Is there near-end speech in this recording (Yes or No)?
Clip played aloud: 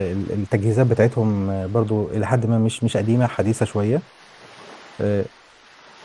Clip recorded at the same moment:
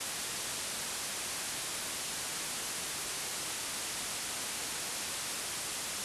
No